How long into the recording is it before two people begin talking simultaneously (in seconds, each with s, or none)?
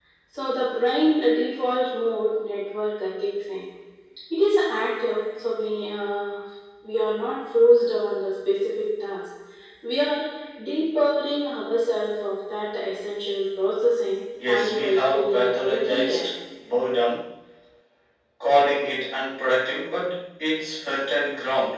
14.3 s